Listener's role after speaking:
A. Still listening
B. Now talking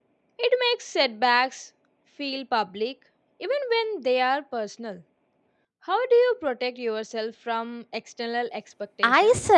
B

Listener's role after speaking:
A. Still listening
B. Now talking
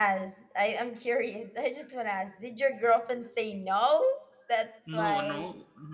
B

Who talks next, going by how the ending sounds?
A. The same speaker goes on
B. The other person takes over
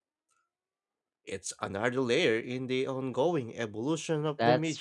B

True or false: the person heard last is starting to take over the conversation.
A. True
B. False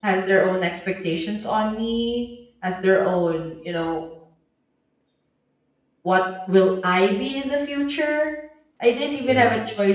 B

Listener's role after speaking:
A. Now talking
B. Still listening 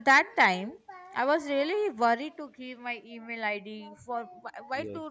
B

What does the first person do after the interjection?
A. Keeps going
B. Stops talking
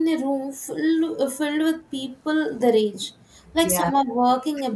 A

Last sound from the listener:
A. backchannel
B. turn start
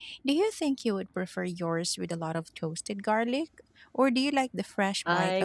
B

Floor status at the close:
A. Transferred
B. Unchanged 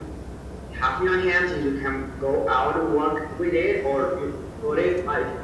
B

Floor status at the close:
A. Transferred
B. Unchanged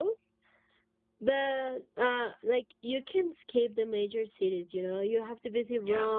B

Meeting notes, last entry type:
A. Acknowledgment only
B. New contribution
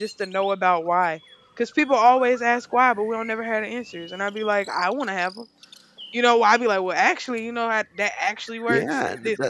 B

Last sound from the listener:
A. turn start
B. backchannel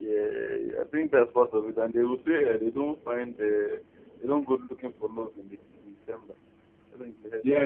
A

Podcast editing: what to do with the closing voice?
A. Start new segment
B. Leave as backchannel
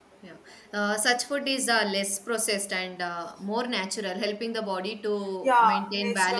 A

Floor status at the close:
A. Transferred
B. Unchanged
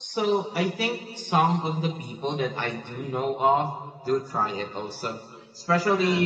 B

